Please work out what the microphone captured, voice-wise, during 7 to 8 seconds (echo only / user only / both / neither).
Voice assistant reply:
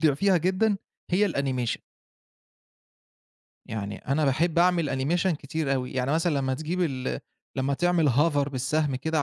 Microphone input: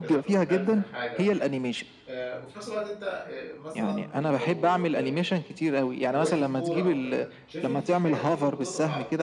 both